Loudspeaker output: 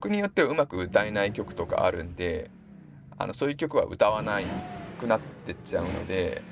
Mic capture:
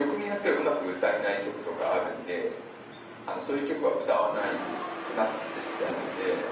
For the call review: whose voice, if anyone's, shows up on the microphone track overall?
echo only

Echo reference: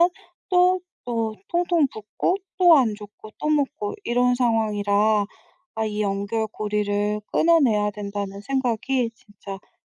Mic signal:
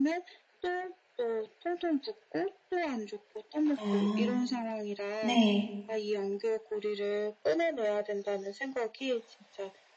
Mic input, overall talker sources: both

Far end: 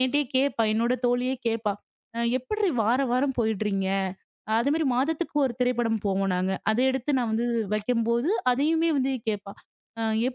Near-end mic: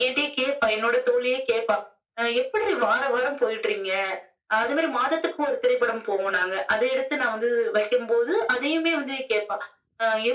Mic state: echo only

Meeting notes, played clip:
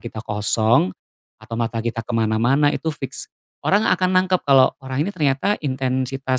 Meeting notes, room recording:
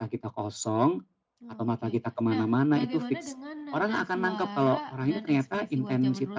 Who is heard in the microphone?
both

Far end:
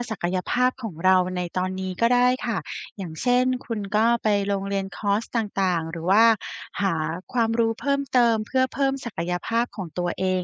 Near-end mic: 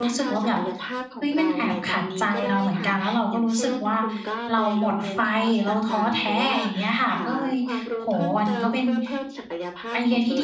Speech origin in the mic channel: both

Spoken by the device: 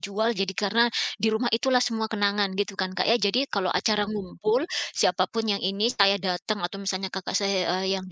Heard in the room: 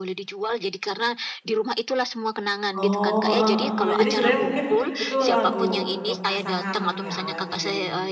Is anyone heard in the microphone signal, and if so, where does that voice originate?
both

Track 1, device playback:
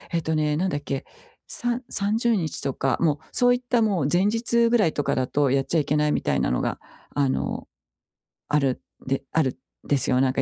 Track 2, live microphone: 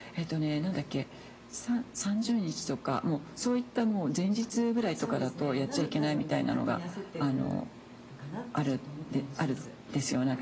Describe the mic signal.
both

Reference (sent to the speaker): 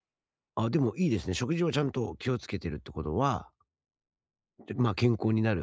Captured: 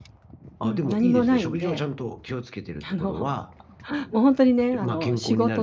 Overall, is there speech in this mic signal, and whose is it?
both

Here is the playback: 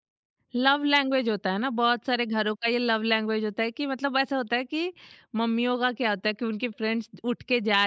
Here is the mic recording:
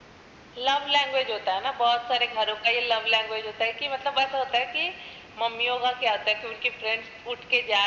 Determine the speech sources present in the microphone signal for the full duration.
echo only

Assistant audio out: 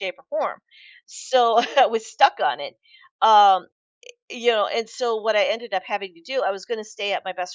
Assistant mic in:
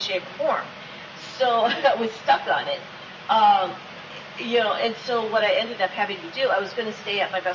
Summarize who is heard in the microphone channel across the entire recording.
echo only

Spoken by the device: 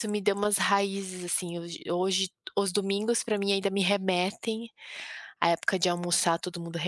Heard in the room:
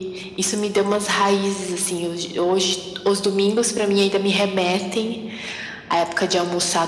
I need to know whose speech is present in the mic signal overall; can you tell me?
echo only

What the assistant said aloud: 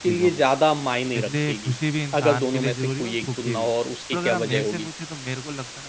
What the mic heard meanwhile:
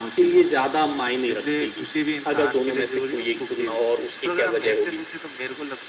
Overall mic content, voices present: echo only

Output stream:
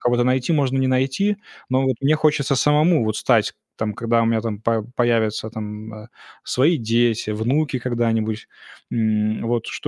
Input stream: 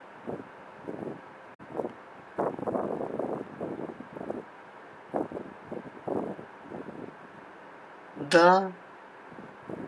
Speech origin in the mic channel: user only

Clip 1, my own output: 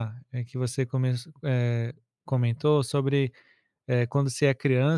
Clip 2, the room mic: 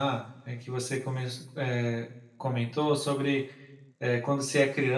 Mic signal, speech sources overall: echo only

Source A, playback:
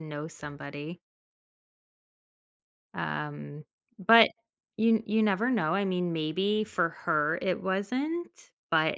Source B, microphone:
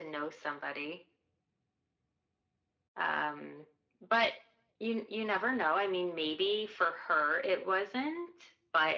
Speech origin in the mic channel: echo only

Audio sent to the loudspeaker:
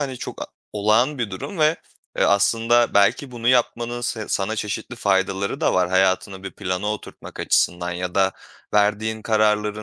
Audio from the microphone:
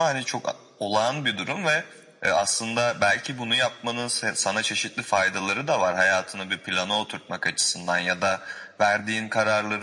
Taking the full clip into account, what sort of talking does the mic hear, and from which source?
echo only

